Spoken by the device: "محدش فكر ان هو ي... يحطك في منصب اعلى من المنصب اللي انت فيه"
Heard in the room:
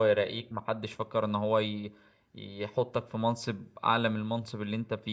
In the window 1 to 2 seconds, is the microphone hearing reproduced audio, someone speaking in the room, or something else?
echo only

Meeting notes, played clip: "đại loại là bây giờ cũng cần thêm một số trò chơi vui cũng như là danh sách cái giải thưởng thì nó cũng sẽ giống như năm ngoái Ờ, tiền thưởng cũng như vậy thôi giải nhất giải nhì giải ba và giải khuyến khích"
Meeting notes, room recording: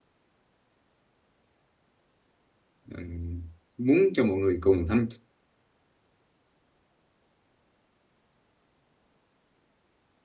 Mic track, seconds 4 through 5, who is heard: user only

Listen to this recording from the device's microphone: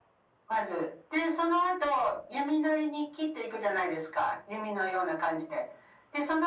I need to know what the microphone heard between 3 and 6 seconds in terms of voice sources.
echo only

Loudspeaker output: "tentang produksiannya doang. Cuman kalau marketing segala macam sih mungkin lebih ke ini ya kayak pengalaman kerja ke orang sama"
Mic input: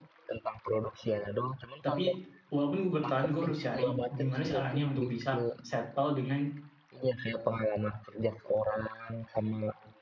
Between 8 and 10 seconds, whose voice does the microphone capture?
echo only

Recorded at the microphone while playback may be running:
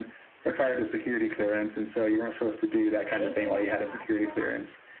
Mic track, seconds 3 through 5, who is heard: both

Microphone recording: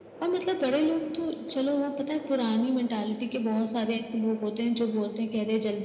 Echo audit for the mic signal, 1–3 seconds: echo only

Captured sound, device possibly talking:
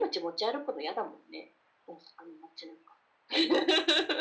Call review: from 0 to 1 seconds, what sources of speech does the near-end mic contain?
echo only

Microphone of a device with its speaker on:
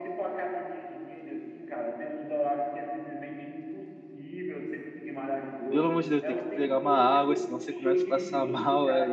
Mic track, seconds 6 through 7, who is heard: both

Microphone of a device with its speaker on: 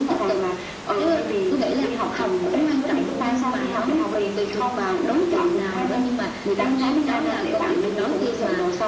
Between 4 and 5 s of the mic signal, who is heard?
echo only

